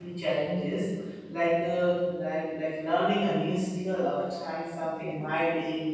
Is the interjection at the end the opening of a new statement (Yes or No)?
No